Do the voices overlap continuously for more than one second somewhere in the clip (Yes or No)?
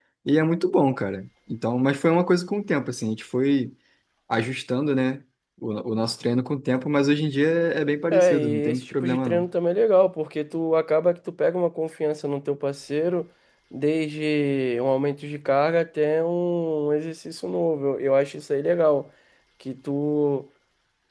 Yes